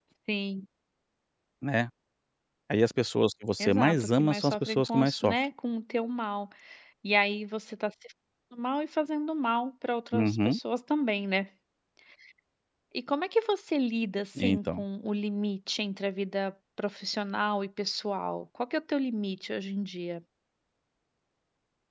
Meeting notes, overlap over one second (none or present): present